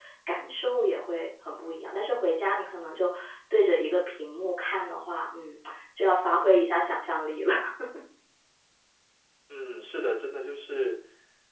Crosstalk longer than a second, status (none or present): none